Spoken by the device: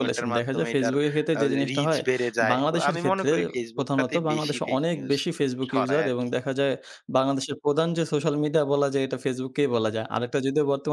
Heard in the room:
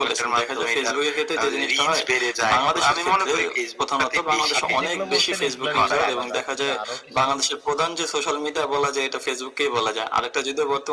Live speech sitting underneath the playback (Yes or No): Yes